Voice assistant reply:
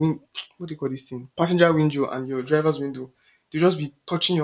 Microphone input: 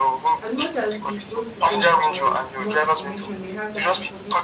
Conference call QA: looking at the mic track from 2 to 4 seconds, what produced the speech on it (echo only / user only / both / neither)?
both